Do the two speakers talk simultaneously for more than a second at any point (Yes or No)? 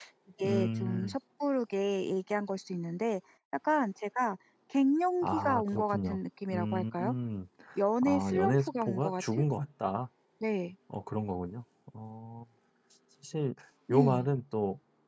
Yes